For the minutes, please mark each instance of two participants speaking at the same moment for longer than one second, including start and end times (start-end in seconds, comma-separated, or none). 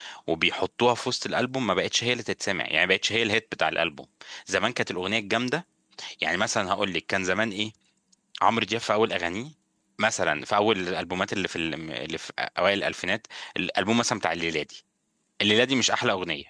none